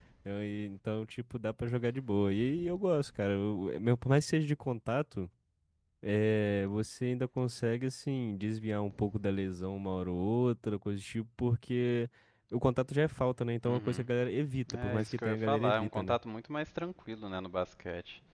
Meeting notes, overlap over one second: present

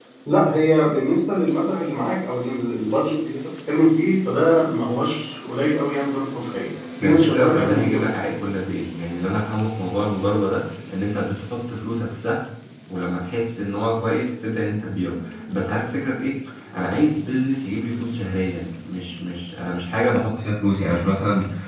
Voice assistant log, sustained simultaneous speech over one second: present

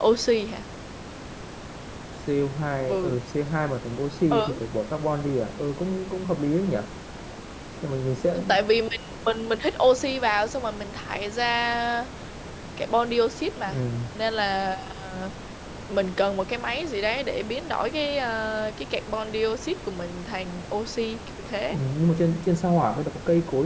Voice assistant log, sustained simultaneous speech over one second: none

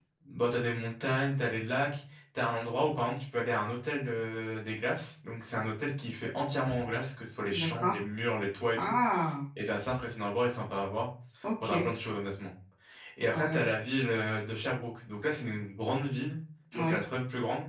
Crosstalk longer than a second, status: none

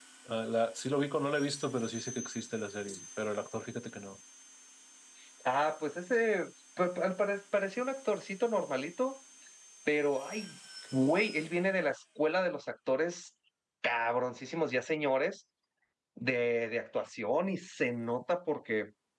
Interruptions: none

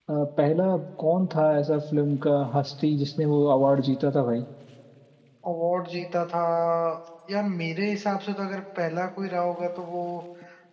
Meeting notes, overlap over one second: none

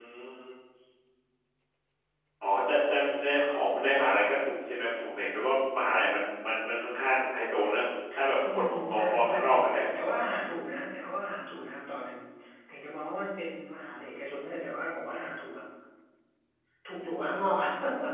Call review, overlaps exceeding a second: present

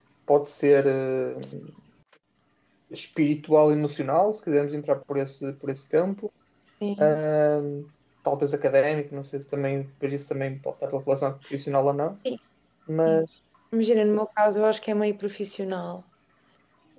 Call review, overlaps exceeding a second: none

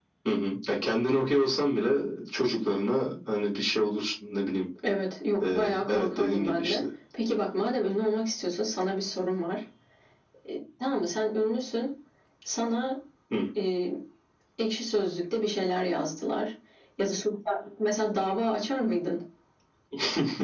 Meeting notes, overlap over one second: present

